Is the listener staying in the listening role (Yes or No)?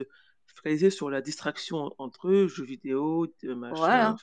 No